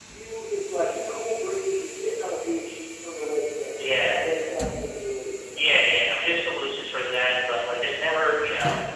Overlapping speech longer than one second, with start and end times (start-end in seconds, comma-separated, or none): none